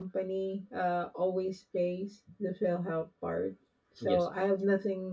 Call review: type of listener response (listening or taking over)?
listening